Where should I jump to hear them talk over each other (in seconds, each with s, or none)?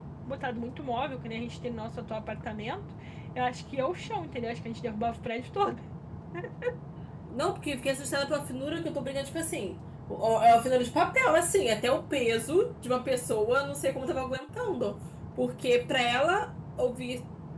none